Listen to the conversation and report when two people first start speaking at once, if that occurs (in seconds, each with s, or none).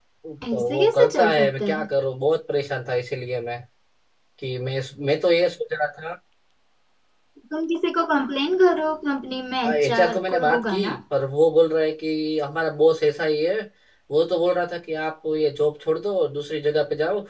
0.5 s